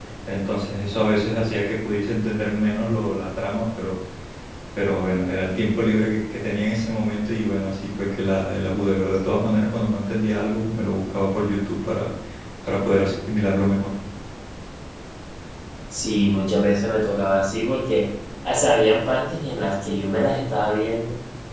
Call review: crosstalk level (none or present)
none